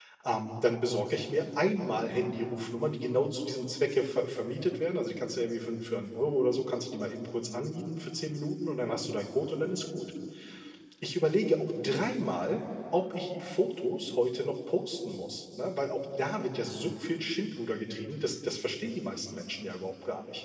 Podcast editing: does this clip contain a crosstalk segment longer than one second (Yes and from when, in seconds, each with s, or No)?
No